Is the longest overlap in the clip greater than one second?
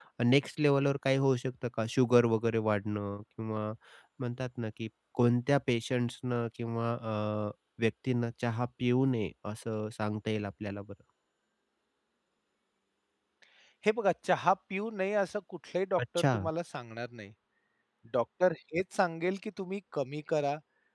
No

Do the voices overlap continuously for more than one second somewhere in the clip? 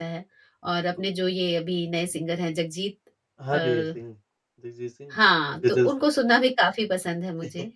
No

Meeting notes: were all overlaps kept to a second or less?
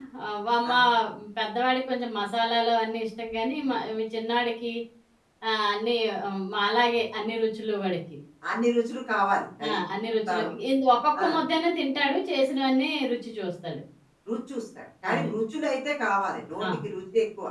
Yes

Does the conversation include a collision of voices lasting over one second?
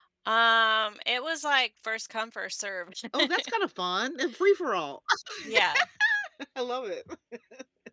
No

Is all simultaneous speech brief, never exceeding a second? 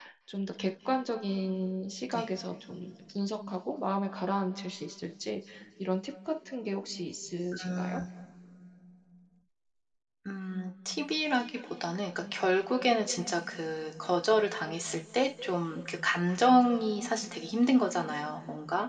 Yes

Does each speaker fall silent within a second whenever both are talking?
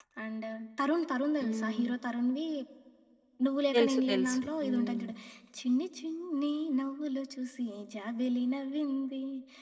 No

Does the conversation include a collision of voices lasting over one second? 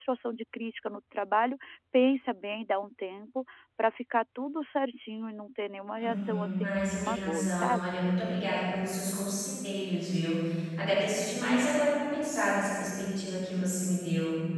Yes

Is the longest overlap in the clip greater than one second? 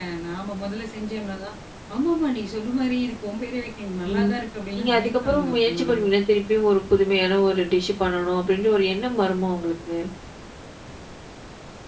Yes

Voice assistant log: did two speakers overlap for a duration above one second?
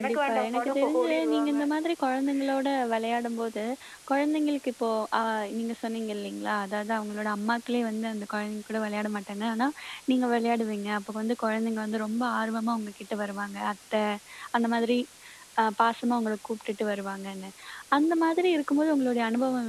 Yes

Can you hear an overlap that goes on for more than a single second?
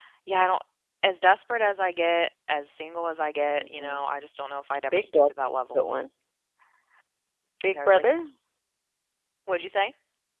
No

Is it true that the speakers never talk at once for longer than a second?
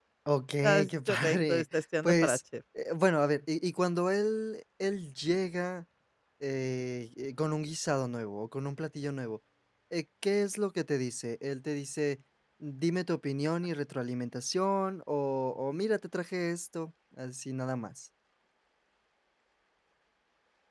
No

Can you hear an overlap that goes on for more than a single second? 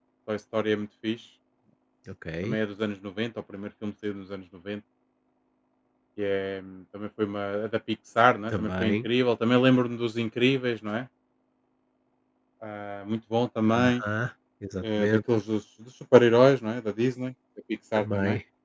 No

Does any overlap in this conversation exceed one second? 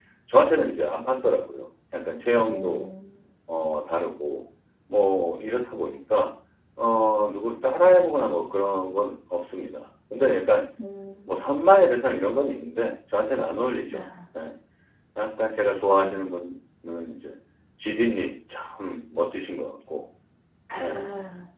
No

